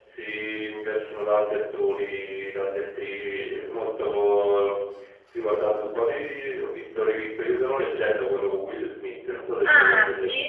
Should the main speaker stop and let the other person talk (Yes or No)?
Yes